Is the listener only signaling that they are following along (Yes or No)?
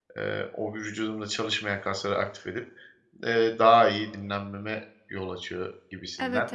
No